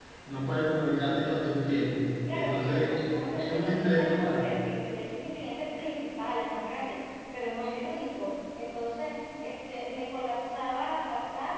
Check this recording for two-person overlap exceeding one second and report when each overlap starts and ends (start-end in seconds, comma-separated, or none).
2.3-4.5